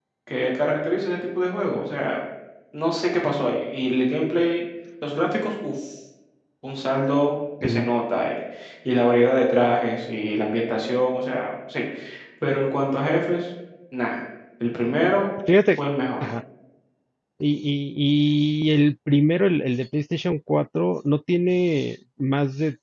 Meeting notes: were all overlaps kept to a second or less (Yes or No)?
Yes